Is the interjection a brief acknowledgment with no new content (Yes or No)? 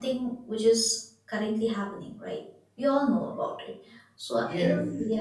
No